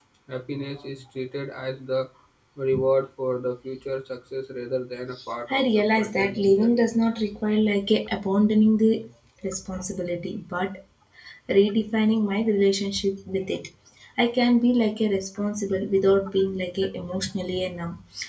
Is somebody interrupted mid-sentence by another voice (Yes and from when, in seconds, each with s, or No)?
Yes, from 5.5 s